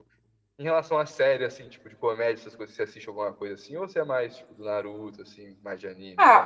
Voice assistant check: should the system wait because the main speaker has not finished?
No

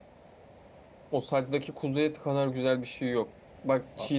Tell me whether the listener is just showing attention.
Yes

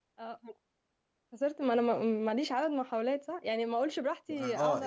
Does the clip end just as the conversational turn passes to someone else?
Yes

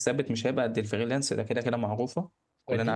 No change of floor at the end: No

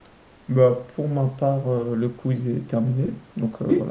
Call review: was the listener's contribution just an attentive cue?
No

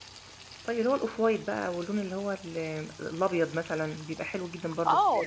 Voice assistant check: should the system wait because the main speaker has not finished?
No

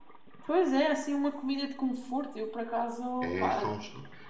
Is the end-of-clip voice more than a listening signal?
Yes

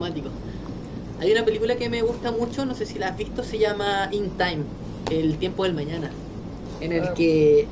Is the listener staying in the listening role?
Yes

